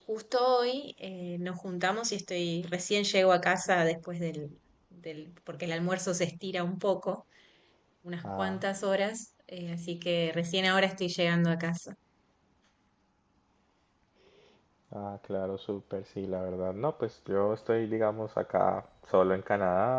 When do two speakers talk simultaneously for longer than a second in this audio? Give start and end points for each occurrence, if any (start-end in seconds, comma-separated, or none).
none